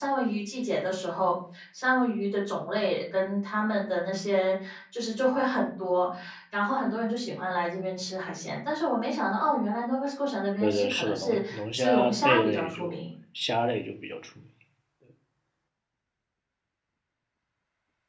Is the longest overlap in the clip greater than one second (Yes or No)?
Yes